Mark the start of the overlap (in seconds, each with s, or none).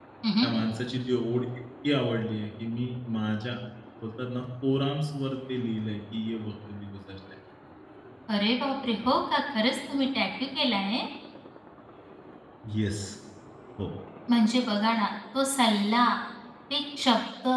none